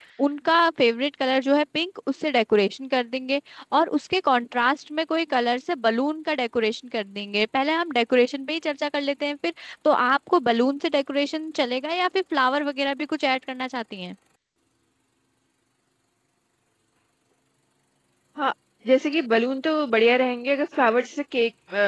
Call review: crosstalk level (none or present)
none